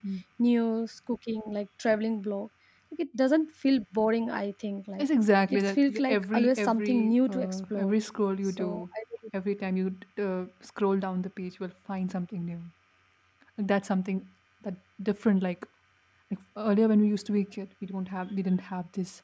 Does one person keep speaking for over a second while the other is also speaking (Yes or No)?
Yes